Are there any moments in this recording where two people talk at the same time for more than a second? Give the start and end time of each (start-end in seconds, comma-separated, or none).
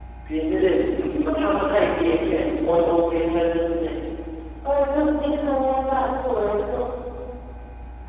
none